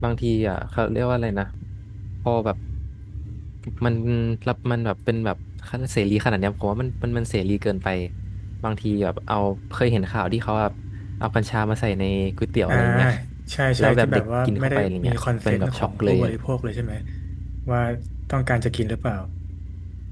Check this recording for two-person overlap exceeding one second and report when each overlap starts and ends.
13.8-16.2

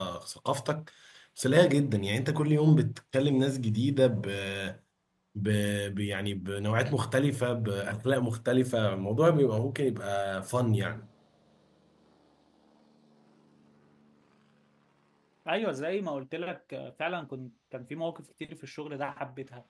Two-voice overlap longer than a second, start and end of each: none

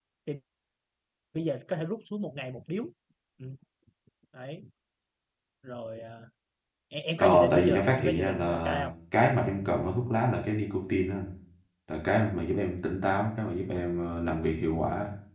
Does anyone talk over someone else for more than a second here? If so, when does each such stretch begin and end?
7.2-8.8

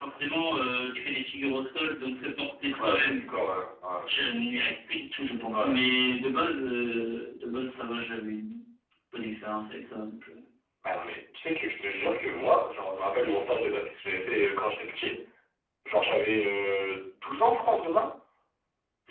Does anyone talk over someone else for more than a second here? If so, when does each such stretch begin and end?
none

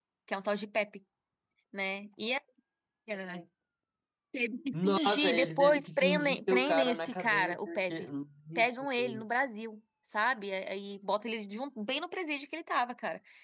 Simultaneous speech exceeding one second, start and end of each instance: 4.7-8.1

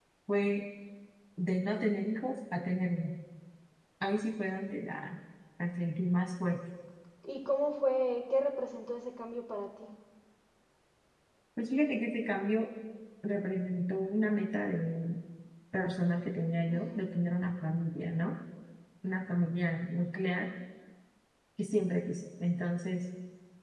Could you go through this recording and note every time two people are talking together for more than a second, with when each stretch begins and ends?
none

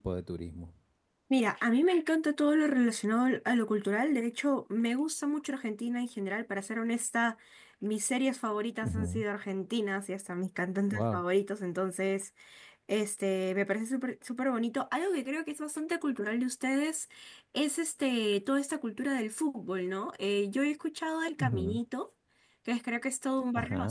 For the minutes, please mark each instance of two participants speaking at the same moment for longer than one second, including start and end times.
none

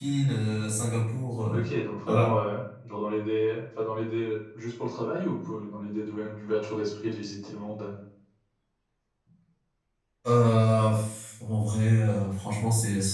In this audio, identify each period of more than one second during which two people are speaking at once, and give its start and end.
none

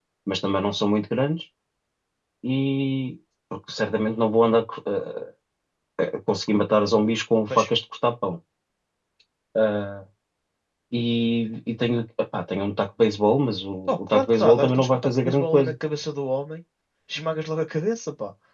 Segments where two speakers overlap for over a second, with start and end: 13.8-15.7

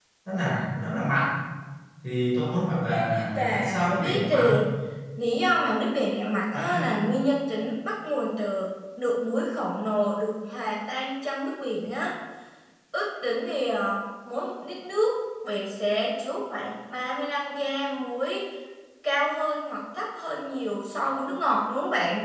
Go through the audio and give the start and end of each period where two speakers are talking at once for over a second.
2.9-4.6

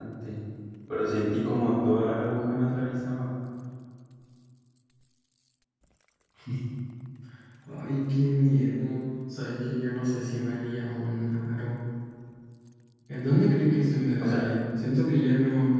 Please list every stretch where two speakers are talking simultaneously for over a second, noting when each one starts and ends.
none

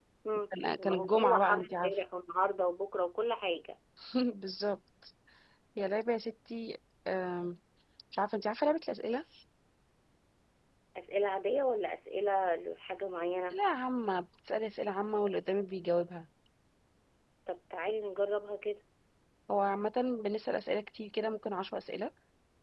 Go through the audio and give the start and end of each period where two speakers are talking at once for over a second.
0.8-2.0

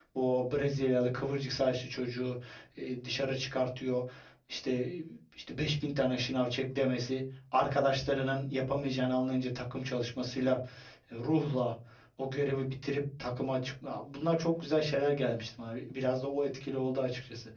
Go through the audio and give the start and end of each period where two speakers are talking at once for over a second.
none

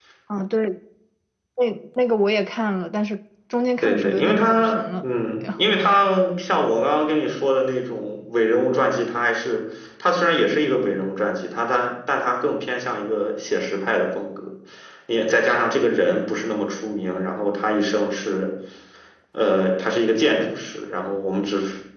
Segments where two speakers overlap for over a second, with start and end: 3.8-5.1

